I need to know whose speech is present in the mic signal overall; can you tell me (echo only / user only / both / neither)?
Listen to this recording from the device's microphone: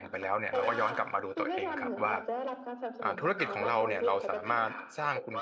both